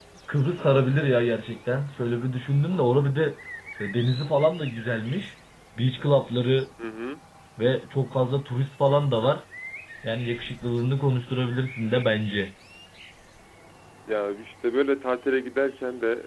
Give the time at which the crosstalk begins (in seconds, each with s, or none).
none